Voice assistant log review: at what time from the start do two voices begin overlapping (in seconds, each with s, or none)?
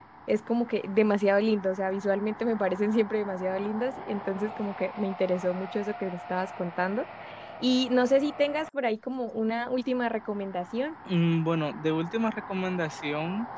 none